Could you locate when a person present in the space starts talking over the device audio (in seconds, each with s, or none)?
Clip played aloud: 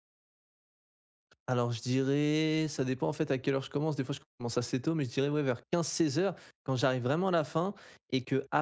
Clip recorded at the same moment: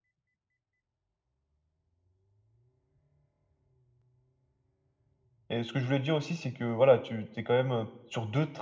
5.5 s